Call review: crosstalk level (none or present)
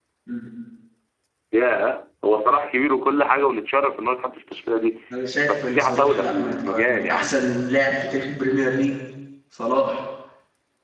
present